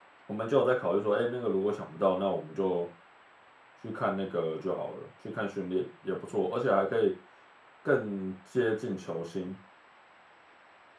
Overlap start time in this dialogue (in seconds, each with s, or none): none